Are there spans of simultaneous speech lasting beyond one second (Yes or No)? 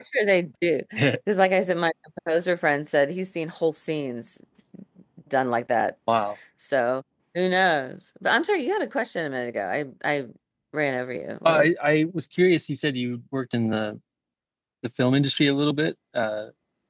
No